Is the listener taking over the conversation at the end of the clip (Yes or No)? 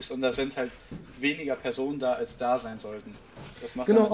Yes